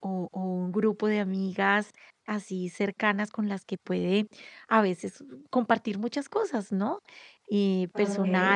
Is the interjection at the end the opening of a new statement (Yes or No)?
No